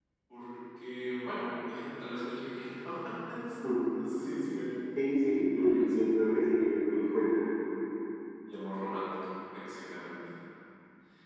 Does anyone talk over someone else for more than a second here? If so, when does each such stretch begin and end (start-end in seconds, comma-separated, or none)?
none